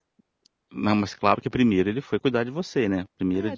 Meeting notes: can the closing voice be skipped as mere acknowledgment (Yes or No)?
No